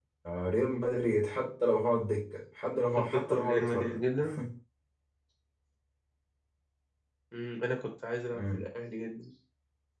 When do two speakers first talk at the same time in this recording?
3 s

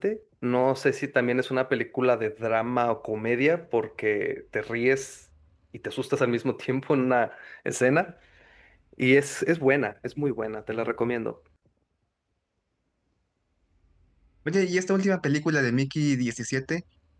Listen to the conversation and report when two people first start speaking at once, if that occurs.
none

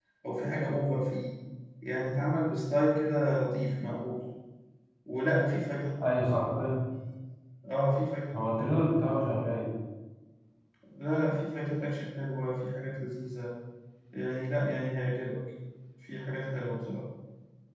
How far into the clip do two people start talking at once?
none

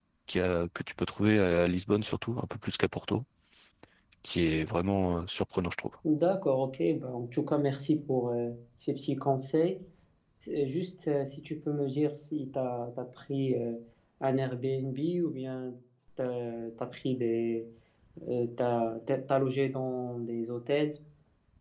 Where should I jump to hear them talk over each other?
none

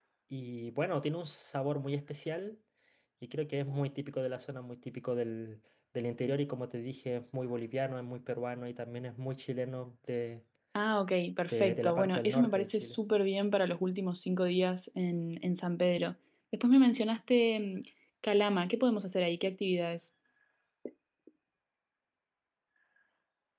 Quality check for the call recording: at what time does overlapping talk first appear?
11 s

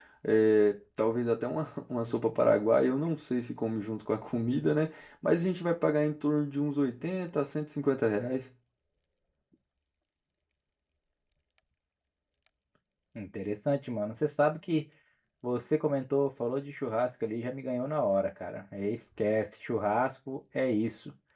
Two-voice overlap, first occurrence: none

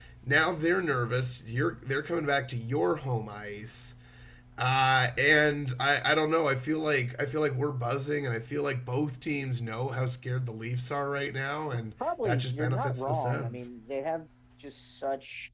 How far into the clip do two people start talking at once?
12 s

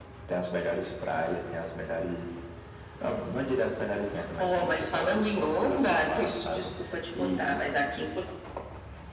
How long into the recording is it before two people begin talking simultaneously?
4 s

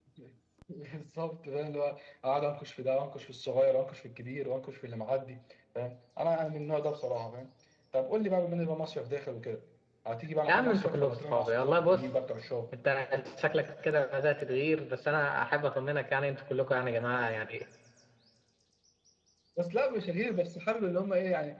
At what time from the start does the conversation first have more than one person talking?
10 s

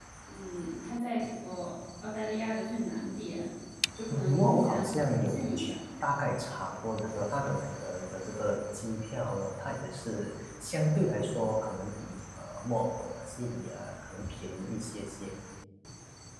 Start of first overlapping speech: 4 s

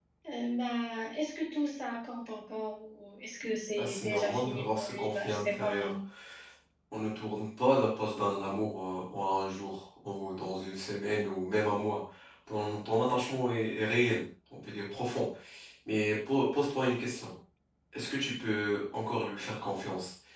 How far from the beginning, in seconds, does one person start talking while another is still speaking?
4 s

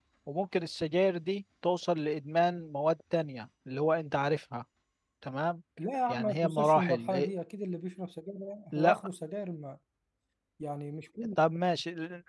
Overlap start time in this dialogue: 6 s

